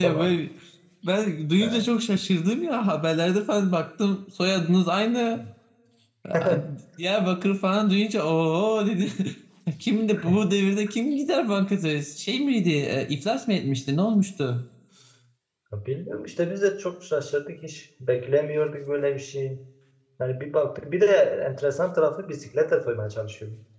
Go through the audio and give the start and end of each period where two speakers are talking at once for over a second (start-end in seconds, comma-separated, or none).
none